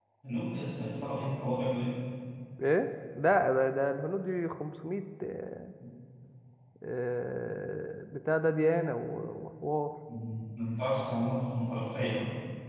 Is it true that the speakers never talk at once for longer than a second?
Yes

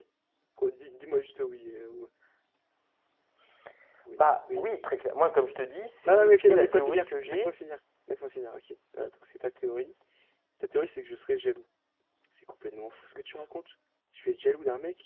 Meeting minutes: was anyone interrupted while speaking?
Yes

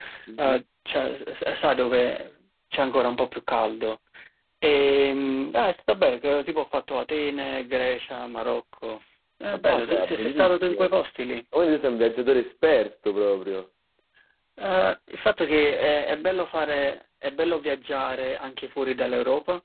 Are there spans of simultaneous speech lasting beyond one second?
Yes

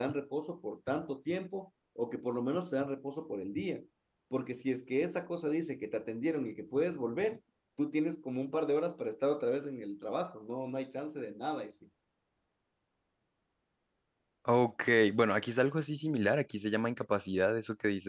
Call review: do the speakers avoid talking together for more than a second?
Yes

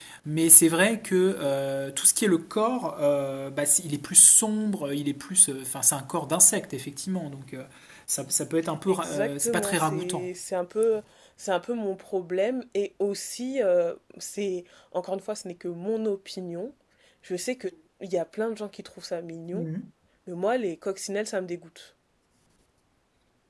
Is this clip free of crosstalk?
No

